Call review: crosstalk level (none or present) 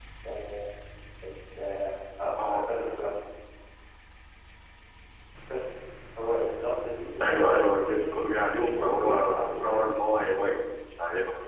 present